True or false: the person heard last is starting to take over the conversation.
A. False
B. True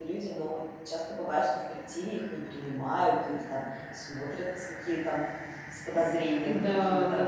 B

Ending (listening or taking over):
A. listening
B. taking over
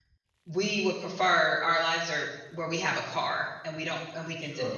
B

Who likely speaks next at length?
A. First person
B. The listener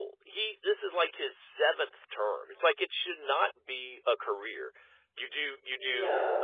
A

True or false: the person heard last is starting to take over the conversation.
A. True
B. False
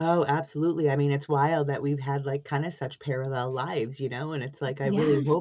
B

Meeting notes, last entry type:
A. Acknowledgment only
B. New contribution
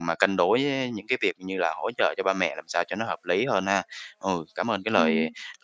A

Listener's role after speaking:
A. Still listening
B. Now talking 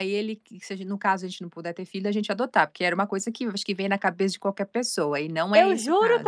B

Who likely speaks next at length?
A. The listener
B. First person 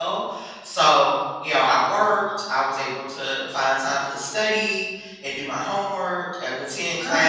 B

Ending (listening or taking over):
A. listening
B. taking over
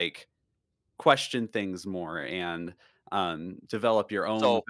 A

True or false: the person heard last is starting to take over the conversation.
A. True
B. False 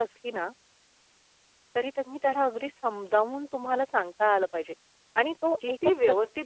A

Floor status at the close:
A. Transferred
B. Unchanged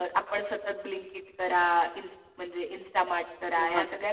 B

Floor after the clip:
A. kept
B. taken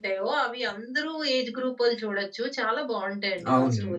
B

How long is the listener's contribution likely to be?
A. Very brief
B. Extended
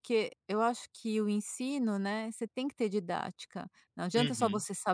A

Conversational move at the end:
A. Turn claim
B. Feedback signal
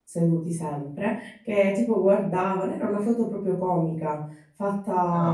A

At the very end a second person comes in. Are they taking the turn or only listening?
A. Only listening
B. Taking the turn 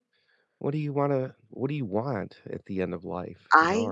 A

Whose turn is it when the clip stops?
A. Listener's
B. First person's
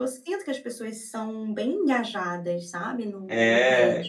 A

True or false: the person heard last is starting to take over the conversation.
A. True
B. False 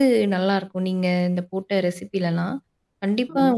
B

